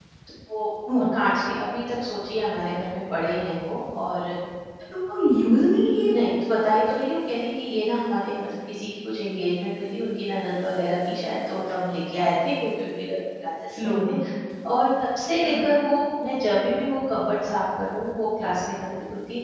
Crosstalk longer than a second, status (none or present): none